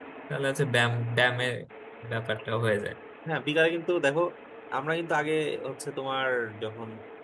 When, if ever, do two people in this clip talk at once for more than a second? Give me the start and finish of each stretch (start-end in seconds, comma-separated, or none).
none